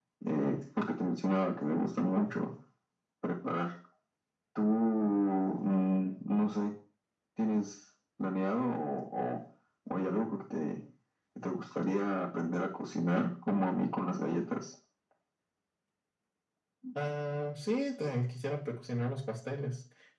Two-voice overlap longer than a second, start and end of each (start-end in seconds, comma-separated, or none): none